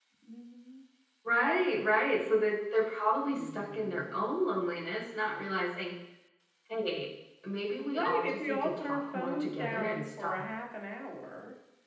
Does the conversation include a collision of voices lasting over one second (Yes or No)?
Yes